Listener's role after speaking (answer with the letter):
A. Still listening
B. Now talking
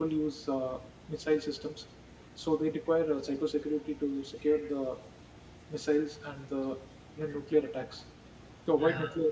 A